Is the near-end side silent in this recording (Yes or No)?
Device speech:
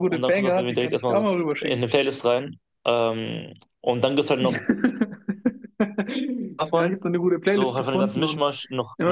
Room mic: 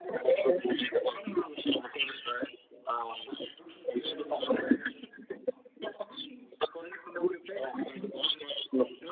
No